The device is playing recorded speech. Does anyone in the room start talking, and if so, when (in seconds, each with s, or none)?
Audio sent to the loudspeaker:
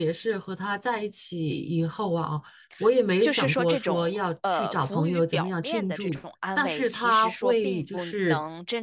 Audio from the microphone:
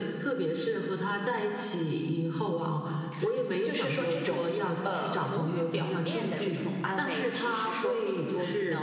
none